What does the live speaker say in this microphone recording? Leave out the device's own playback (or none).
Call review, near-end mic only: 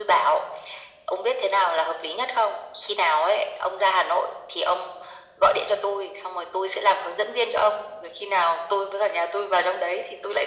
none